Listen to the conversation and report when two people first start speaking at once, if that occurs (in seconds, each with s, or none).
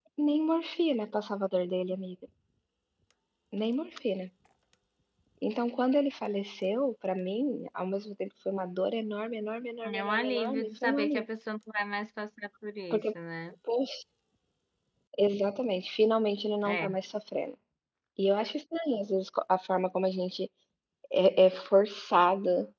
9.8 s